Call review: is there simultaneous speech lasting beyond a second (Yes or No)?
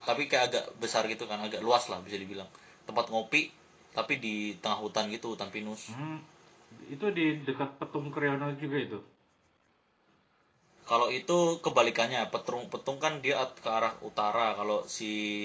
No